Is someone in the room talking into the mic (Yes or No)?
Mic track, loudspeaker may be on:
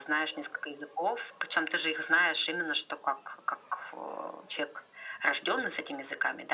No